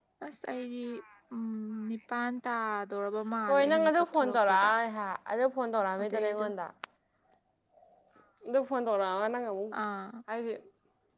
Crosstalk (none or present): present